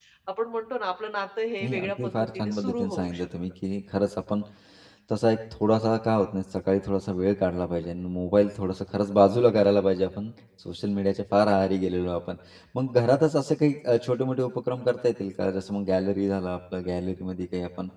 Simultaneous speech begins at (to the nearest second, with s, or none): 2 s